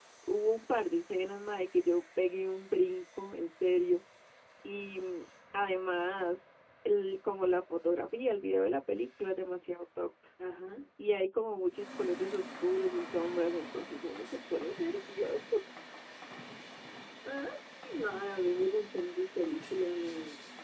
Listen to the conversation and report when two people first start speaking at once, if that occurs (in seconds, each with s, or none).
none